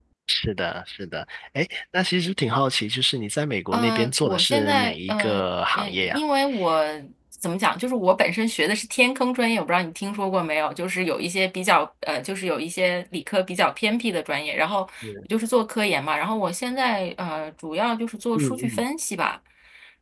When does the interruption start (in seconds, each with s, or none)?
3.7 s